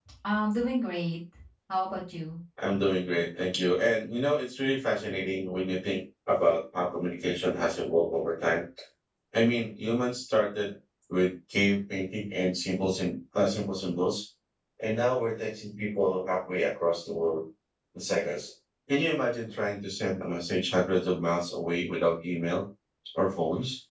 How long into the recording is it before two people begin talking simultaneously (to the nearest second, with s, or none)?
none